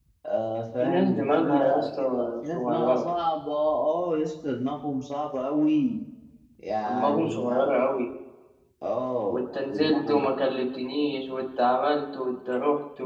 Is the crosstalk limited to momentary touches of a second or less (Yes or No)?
No